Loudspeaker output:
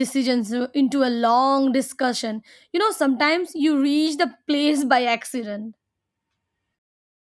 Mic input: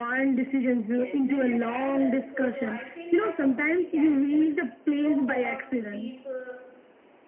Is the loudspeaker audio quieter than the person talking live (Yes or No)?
No